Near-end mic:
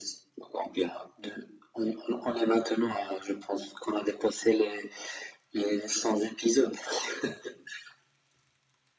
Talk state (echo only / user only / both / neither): echo only